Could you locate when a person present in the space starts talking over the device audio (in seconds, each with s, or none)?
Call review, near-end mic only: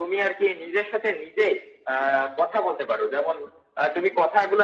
none